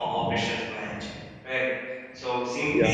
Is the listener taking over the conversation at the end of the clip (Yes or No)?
No